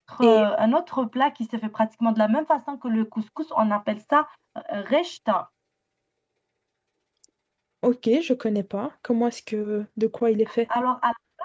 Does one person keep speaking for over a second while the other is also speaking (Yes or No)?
No